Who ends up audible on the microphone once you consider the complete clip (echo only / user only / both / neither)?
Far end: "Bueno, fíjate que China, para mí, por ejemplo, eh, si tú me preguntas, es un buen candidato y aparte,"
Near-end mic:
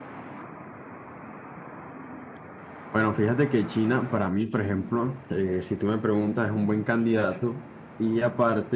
echo only